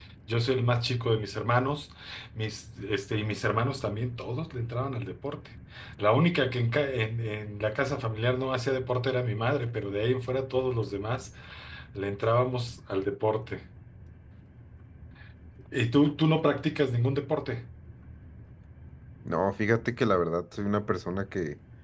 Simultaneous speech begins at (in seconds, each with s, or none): none